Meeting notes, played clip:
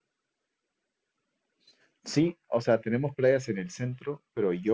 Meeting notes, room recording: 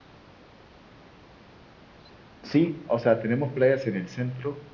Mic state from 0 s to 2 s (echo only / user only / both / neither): neither